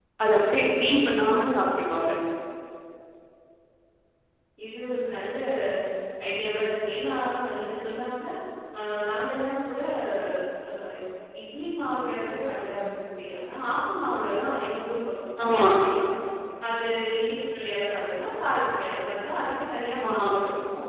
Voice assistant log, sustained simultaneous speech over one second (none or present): none